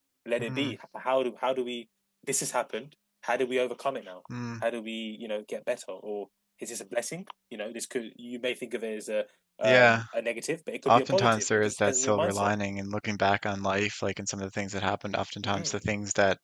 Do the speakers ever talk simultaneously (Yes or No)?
Yes